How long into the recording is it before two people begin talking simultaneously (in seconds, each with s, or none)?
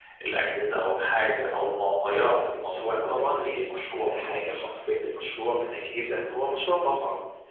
2.6 s